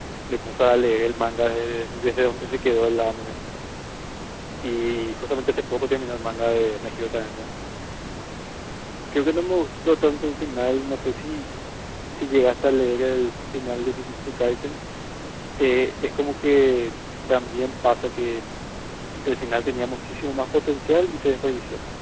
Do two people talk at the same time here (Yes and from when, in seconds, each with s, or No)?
No